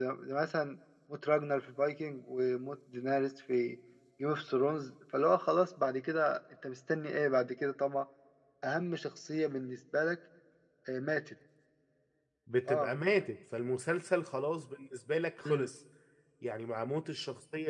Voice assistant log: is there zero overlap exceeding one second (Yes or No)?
Yes